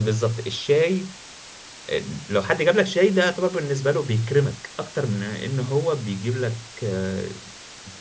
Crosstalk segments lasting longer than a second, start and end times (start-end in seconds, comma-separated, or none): none